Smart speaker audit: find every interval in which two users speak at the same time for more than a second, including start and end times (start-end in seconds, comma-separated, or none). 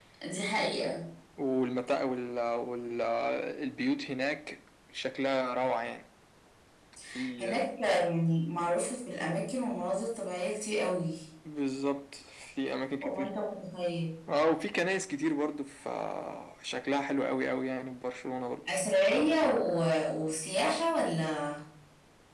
none